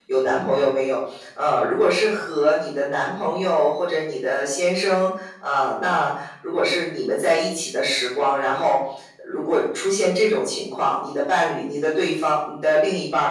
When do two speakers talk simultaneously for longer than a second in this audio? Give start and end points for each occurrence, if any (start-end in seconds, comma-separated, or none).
none